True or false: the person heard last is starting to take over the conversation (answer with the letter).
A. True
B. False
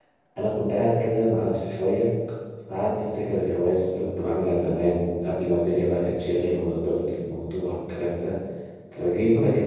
B